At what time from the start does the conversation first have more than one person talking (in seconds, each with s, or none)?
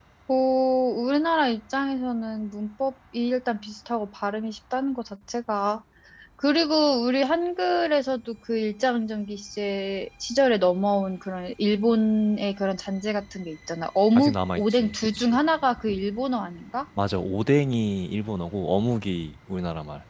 14.2 s